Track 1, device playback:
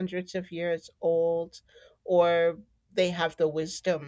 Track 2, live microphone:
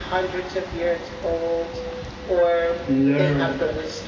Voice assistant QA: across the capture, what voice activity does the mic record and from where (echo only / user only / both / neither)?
both